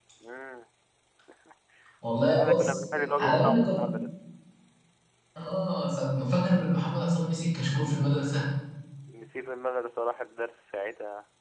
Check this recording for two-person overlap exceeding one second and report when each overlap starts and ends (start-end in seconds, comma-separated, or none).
2.2-3.8